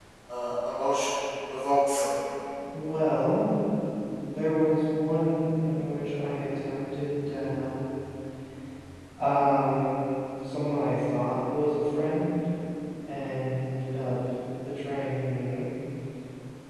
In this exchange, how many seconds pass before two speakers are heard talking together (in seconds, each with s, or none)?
none